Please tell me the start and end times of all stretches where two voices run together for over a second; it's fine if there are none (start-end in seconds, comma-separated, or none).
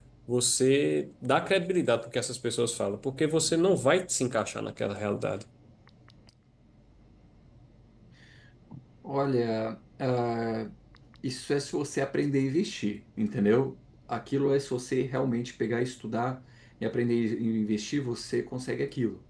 none